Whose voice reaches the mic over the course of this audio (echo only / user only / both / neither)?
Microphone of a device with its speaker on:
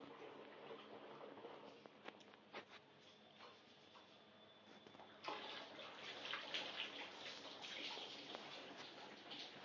neither